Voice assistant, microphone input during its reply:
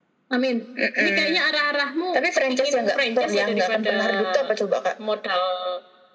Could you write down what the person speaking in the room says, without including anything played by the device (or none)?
none